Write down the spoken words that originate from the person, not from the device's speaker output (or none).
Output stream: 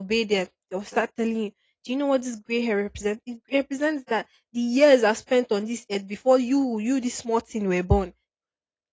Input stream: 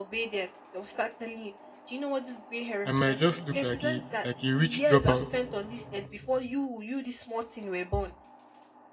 I might just look like a like a rich dropout.